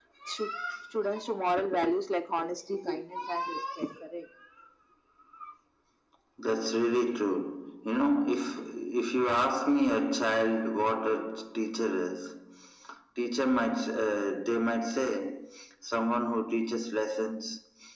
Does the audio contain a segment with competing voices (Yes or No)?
No